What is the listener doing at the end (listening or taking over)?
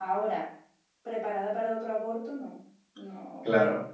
taking over